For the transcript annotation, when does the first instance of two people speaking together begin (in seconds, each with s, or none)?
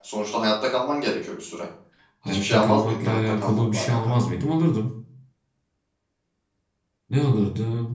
2.3 s